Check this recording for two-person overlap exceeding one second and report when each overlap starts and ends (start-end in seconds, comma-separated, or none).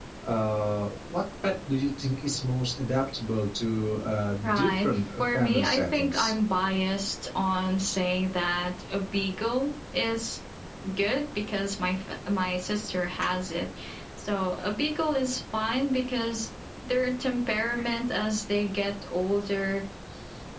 4.4-6.3